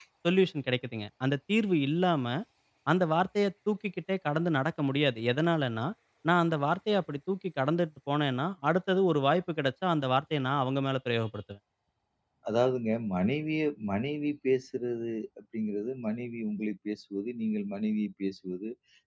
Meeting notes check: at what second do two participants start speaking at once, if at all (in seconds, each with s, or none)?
none